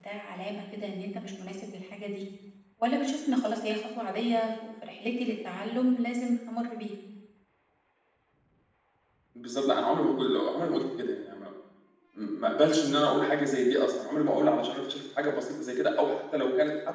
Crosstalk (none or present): none